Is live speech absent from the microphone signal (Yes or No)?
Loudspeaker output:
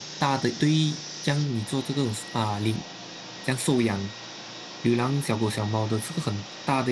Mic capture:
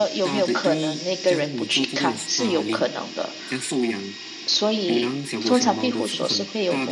No